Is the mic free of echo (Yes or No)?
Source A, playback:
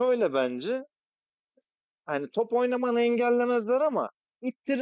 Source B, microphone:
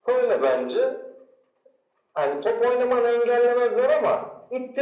No